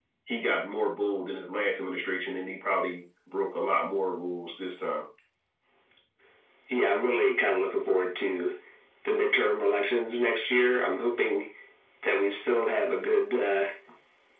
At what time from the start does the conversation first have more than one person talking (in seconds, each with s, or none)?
none